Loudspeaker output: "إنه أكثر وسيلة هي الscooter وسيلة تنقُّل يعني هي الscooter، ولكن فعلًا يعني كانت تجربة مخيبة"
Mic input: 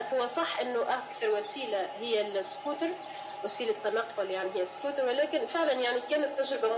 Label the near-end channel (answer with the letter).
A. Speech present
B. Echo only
B